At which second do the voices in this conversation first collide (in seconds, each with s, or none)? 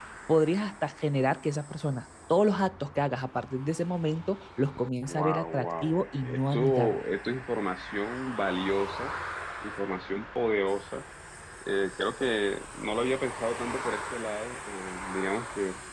5.0 s